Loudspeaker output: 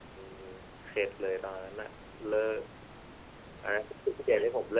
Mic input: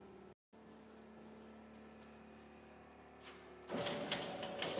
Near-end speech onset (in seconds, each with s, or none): none